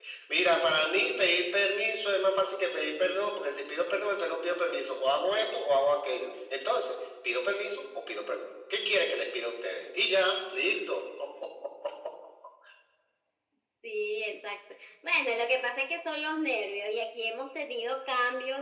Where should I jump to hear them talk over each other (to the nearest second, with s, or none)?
none